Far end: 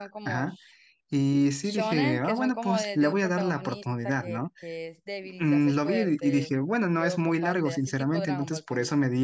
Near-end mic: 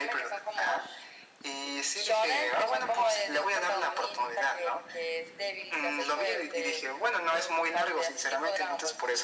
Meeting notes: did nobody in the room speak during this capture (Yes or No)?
Yes